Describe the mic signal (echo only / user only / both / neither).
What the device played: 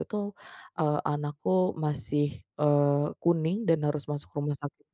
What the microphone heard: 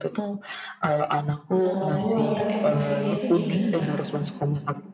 both